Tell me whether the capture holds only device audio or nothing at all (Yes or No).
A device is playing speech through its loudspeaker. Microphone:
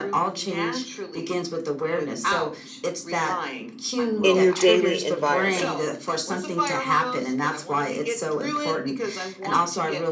No